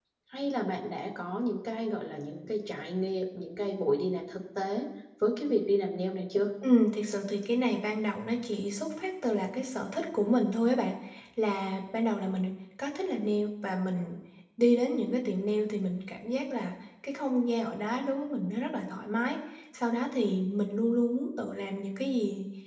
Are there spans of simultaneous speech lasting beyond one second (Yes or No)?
No